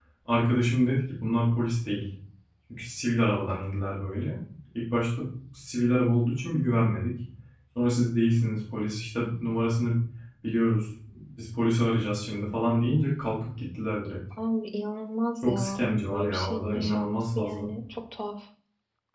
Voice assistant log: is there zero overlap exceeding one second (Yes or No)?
No